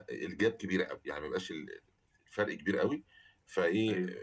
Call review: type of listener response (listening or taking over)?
listening